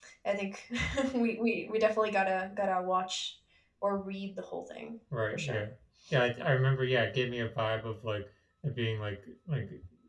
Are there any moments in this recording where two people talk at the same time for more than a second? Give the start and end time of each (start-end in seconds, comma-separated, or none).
none